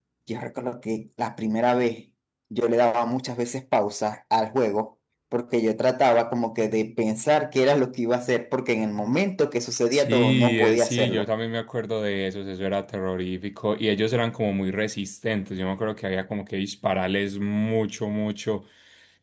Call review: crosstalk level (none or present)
present